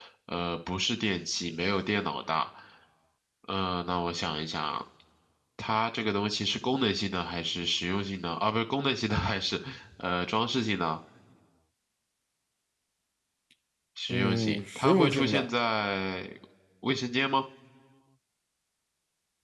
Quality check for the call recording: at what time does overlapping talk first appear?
14.1 s

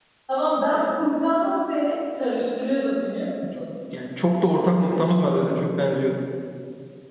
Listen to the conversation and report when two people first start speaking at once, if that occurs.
none

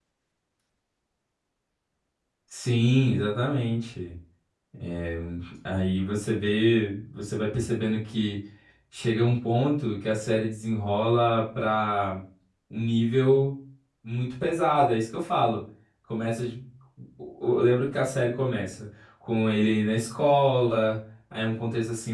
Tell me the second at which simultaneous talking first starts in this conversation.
none

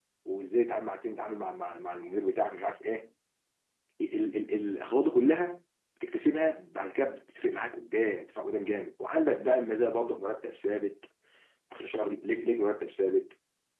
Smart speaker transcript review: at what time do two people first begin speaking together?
none

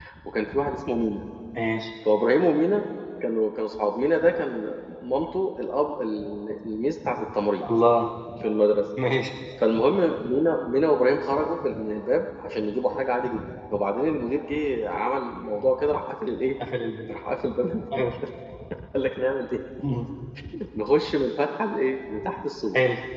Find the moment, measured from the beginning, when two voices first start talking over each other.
none

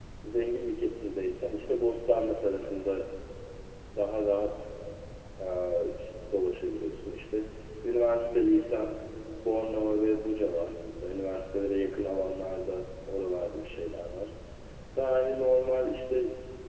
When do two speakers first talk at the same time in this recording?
none

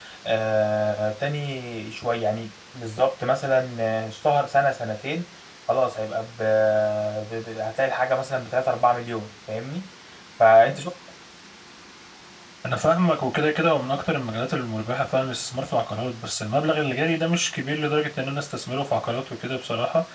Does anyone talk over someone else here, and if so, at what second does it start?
none

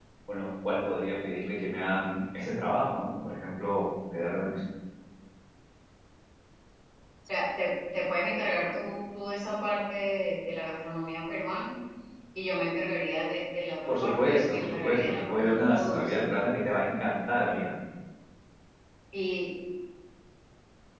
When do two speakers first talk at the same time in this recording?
13.9 s

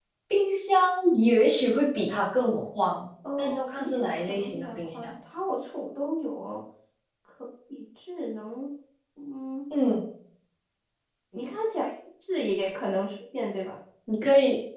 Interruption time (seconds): 3.2 s

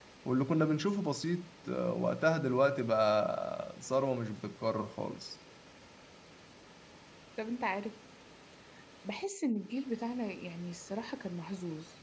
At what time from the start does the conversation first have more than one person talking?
none

